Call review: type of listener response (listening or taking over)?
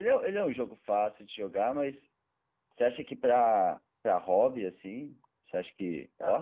taking over